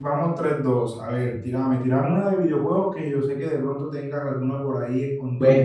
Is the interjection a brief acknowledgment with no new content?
No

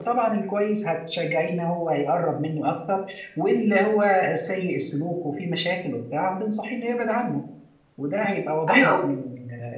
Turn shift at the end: No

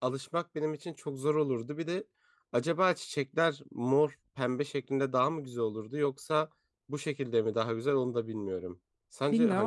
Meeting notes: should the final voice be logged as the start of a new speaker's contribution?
Yes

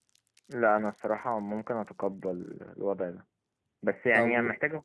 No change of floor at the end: Yes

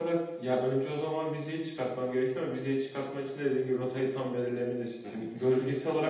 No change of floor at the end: Yes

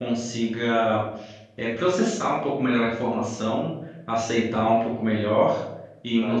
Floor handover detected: No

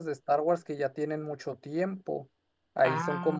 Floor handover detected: No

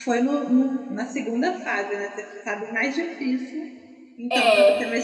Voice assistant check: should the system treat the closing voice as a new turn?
No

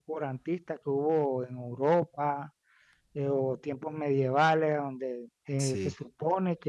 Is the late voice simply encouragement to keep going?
Yes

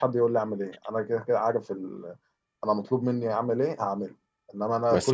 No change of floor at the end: Yes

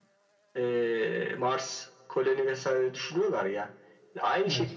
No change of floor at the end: Yes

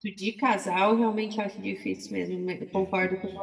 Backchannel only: No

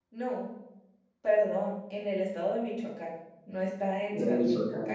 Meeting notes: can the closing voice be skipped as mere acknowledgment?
Yes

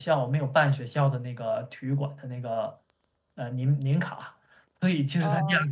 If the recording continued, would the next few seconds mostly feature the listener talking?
No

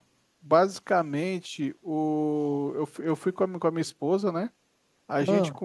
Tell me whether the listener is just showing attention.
Yes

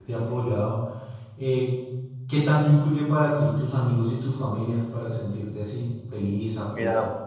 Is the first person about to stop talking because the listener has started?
Yes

